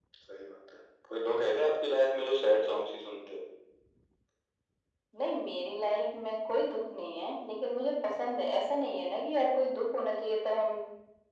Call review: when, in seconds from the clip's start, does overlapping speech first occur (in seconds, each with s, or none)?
none